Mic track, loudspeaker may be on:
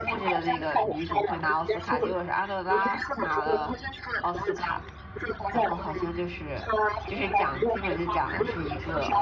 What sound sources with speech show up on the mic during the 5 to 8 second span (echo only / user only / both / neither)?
both